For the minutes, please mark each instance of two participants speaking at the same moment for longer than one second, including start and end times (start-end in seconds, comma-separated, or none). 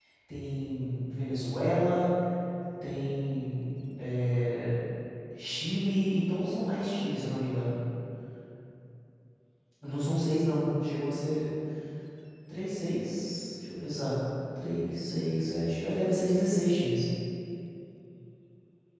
none